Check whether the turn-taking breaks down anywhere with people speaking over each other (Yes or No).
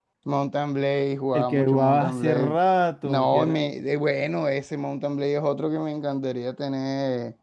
Yes